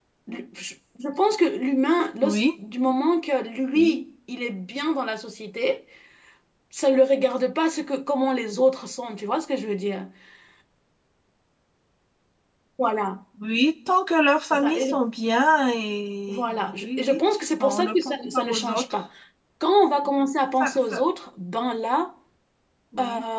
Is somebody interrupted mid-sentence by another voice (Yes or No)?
Yes